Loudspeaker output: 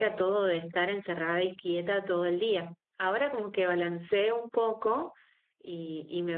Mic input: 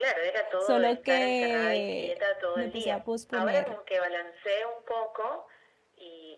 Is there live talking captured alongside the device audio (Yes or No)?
Yes